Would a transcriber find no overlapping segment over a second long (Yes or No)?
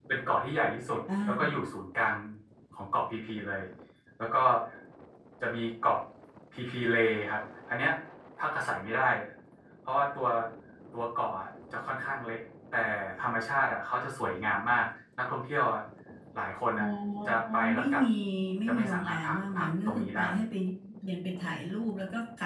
No